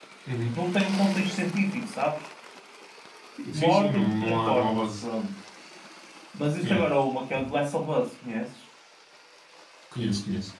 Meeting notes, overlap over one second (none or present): present